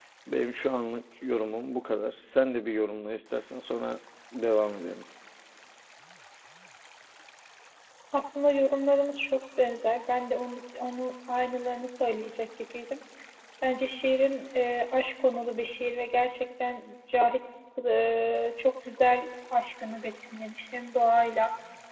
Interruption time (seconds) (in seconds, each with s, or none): none